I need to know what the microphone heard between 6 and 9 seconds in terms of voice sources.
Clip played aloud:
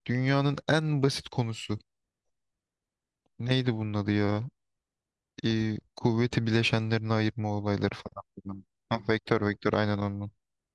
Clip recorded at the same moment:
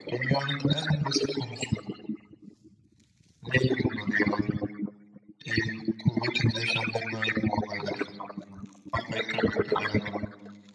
echo only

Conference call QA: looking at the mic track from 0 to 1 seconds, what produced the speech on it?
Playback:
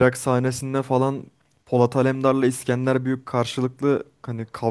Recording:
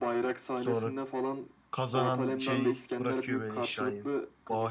both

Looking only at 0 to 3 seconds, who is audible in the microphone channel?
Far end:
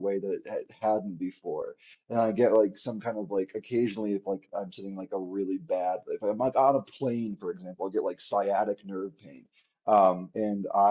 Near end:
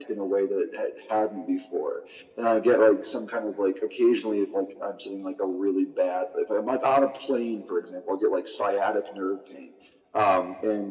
echo only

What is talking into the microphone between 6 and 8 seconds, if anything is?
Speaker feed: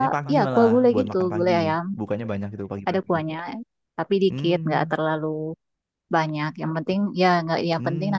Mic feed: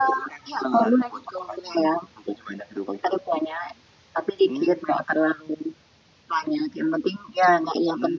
echo only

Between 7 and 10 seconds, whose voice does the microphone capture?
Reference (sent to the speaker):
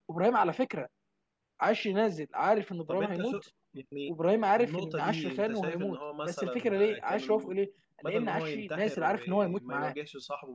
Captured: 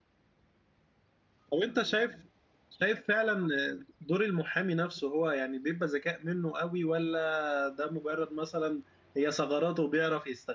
user only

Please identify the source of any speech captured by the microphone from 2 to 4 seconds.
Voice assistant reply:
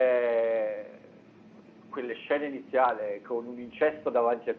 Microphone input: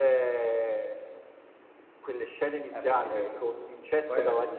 both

